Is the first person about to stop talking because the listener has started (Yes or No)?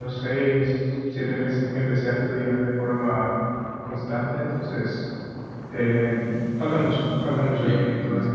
Yes